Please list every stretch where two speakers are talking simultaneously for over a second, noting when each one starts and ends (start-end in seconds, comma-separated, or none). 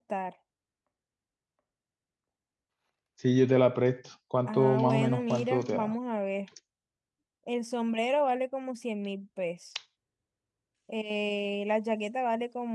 4.5-5.9